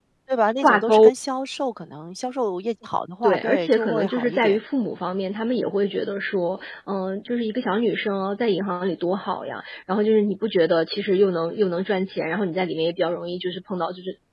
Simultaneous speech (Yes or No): Yes